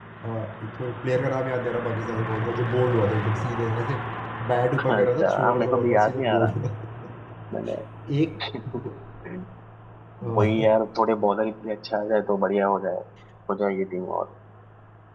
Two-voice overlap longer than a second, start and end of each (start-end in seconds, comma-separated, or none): 4.8-6.5